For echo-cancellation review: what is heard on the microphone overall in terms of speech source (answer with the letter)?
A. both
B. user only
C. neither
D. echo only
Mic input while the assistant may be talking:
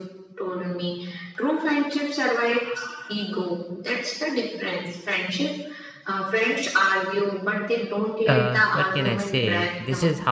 A